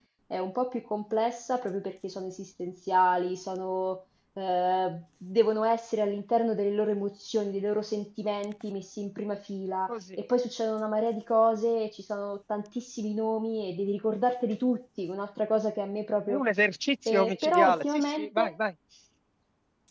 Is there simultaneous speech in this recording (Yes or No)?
Yes